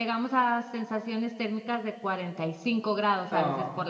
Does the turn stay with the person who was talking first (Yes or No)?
No